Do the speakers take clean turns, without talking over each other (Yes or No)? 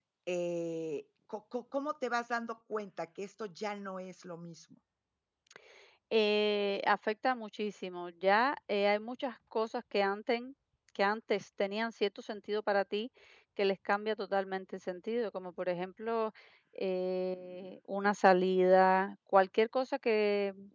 Yes